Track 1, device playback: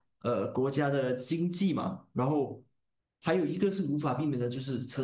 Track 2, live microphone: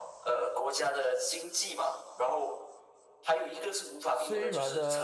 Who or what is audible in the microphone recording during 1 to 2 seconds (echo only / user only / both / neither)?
echo only